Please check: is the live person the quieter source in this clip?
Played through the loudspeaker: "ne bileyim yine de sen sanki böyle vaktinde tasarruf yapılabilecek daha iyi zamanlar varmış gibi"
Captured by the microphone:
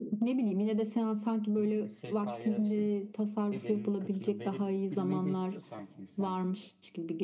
Yes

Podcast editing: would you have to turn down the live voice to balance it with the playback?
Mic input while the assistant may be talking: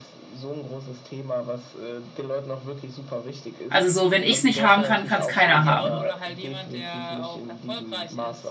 Yes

